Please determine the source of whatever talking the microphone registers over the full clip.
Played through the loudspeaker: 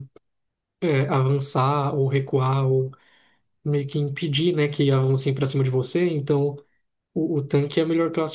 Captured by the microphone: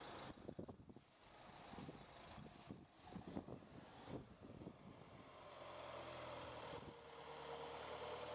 neither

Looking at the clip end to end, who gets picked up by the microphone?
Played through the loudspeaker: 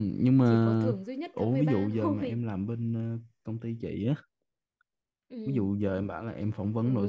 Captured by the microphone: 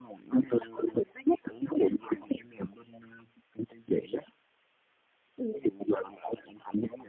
echo only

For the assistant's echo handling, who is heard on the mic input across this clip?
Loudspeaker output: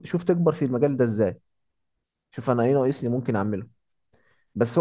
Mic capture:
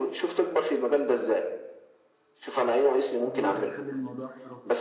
both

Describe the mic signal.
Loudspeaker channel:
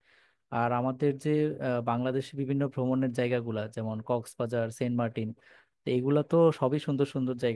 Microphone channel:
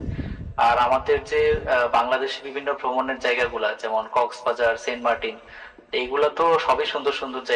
echo only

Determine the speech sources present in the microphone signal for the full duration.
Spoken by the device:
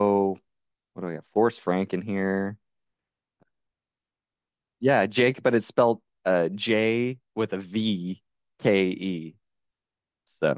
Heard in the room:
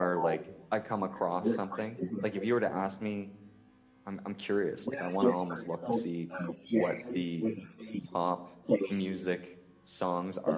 both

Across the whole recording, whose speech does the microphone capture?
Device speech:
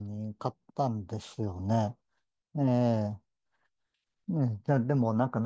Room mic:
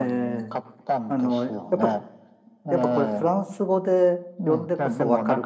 both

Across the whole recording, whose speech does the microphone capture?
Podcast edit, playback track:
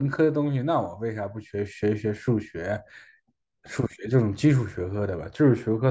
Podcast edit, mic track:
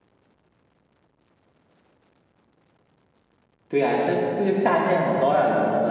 user only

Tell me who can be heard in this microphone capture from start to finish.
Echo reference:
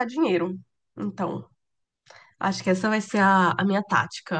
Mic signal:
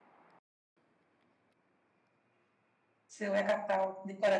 user only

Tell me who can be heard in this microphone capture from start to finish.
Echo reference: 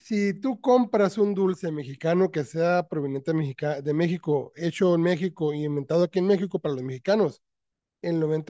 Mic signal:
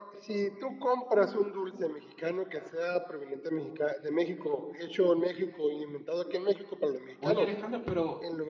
both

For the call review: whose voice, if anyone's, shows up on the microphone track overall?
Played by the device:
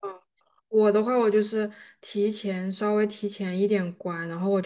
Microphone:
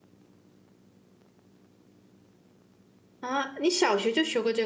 user only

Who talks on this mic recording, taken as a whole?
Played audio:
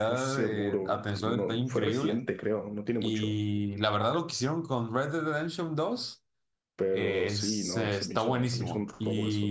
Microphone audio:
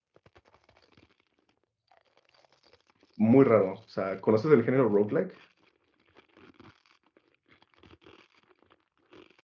user only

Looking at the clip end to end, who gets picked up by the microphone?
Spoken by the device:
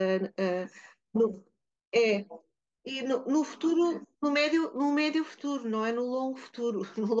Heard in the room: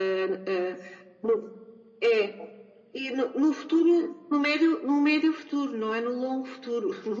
echo only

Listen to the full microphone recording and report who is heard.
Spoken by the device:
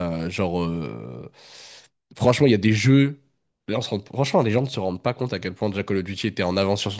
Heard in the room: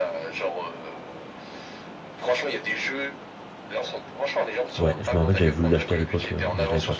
both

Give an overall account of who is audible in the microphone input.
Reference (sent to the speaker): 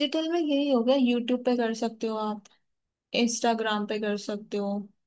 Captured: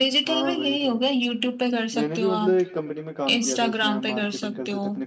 both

